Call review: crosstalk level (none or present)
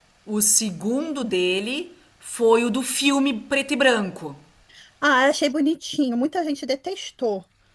none